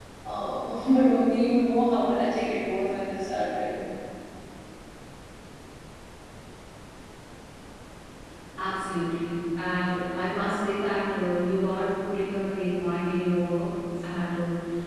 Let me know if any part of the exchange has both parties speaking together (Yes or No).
No